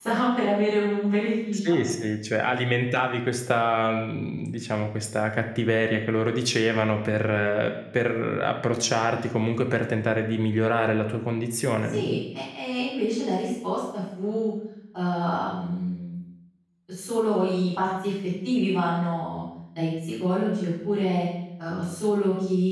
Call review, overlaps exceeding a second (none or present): none